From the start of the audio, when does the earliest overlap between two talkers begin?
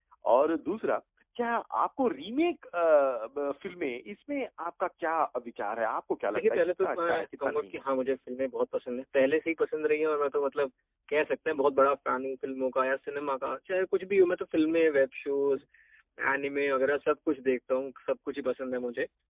6 s

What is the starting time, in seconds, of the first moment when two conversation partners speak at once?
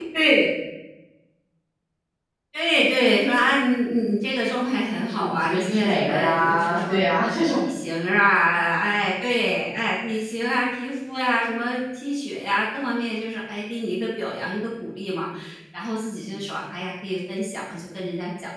5 s

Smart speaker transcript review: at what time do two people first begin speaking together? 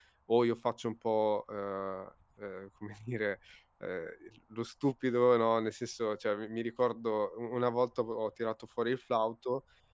none

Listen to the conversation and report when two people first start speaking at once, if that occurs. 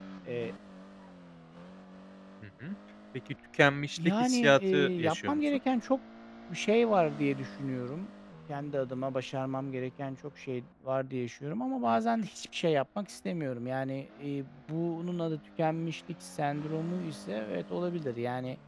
4 s

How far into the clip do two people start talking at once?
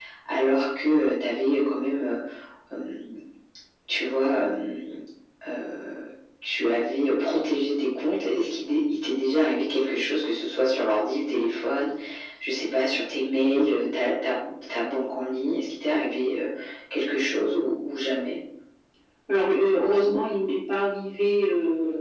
none

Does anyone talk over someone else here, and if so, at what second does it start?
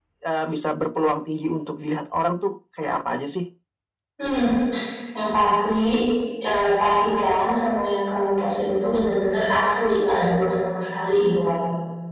none

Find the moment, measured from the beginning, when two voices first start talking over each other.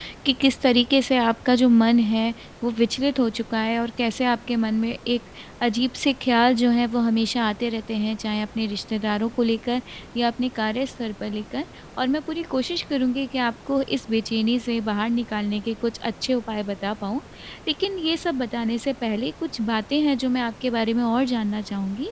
none

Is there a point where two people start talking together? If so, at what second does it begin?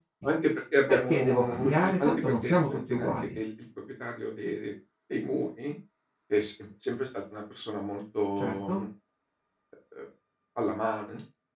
1 s

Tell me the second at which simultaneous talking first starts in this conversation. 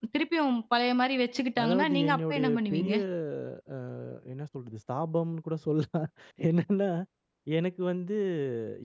2 s

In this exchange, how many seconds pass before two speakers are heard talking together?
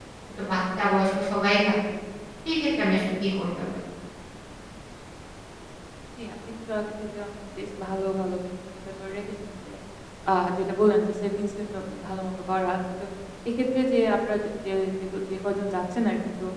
none

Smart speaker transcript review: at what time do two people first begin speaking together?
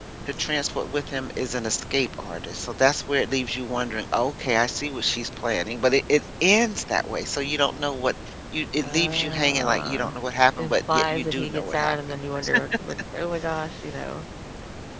9 s

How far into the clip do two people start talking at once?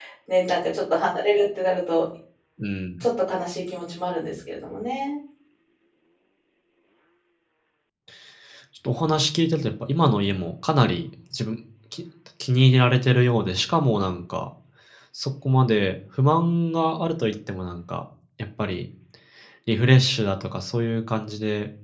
none

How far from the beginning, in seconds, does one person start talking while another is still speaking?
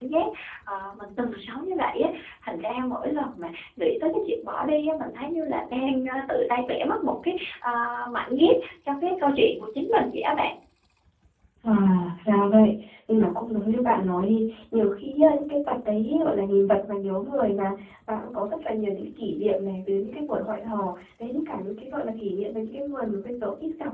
none

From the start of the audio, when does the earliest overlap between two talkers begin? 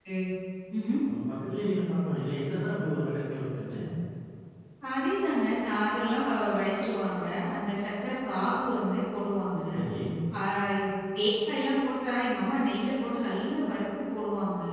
none

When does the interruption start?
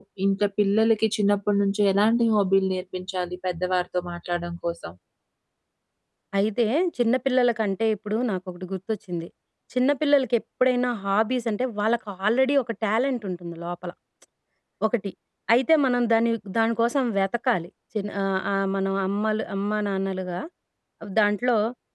none

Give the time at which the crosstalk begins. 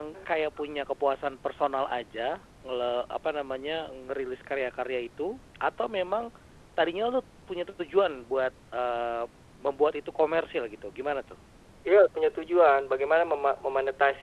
none

